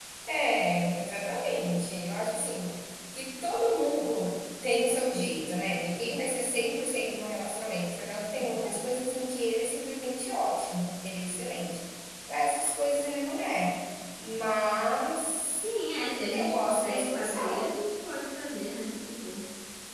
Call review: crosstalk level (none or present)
present